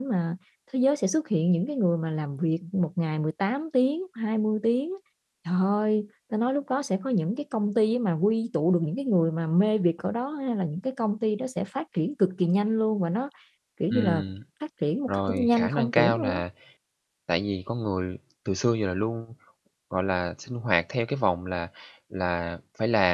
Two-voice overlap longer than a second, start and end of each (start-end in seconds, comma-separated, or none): 15.1-16.4